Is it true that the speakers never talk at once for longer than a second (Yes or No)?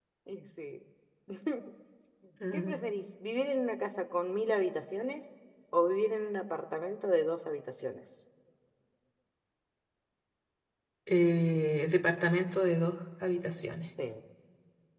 Yes